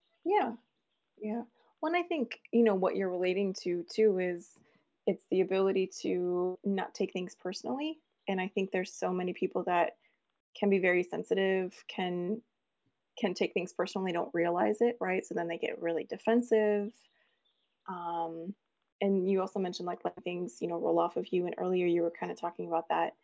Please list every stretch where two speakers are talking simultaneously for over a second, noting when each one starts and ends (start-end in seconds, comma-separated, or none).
none